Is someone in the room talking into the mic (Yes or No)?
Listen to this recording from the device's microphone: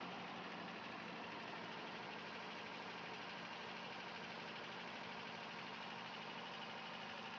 No